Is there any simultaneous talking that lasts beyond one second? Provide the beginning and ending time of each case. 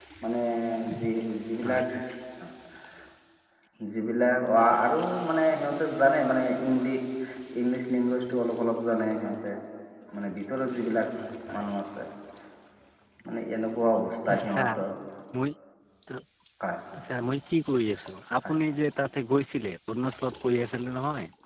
none

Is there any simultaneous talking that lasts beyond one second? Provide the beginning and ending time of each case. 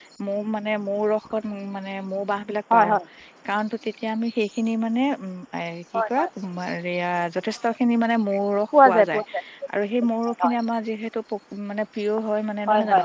none

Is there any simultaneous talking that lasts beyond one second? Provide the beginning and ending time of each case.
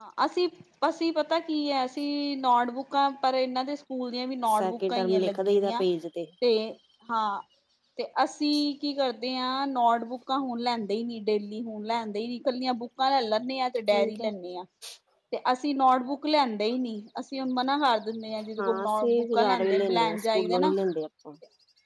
4.5-5.8, 18.6-20.7

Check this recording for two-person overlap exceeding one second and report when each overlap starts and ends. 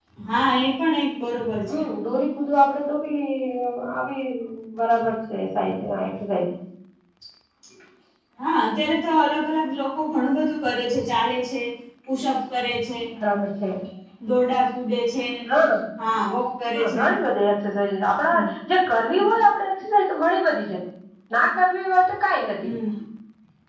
none

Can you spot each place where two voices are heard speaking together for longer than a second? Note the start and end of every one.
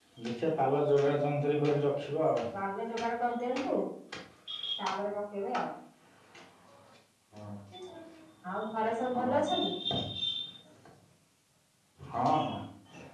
none

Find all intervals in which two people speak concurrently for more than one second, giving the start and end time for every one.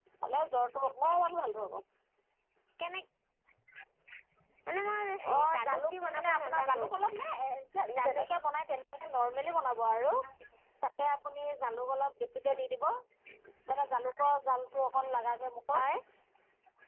5.3-6.8

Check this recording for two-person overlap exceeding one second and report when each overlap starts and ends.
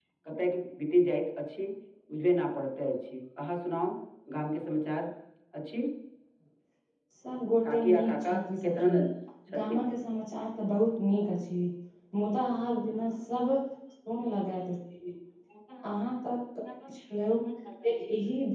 7.7-8.9

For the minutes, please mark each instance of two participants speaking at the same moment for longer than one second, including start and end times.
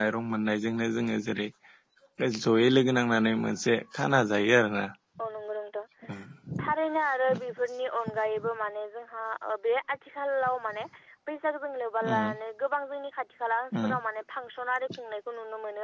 none

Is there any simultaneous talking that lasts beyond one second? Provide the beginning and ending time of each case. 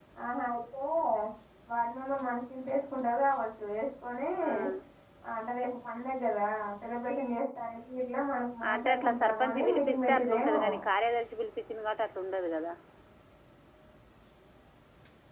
8.7-10.6

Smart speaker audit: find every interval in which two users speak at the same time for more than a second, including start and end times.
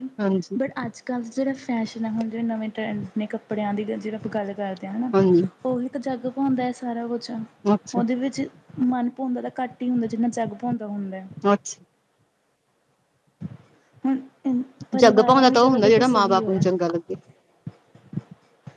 15.0-16.6

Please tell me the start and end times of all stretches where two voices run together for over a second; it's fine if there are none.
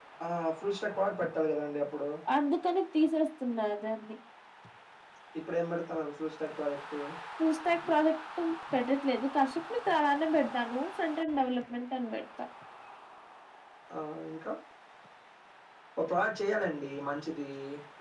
none

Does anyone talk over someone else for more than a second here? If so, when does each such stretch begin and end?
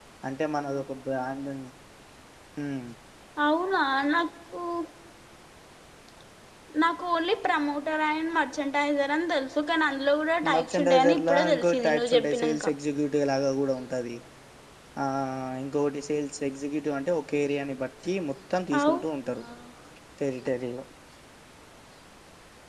10.5-12.7

